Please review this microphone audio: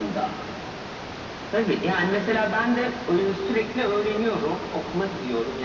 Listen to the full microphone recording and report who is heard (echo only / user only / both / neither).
echo only